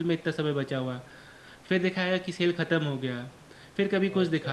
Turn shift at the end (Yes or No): No